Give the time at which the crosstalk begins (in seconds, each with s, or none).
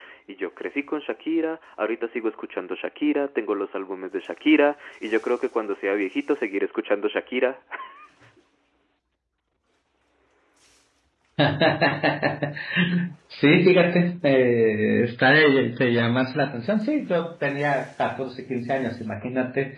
none